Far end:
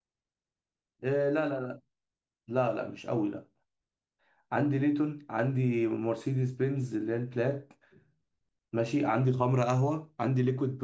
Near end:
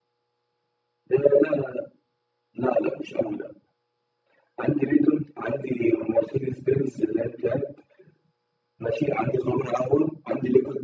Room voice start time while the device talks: none

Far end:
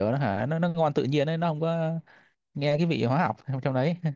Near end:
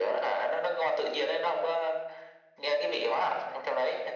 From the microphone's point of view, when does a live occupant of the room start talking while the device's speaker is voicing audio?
none

